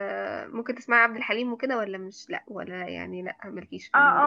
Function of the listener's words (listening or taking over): taking over